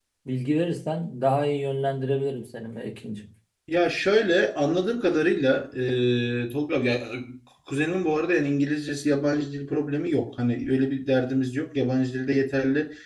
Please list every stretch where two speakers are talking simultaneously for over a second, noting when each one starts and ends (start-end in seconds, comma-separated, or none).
none